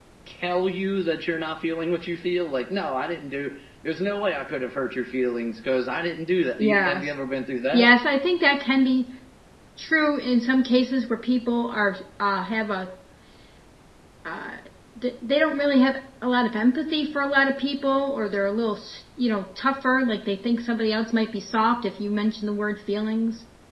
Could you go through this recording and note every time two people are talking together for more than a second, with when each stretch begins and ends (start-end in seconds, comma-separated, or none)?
none